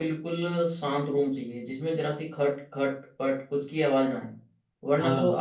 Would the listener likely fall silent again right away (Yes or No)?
Yes